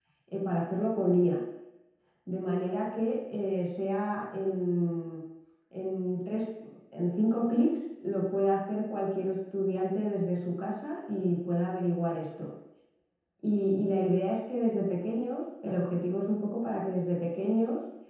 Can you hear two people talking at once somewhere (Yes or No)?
No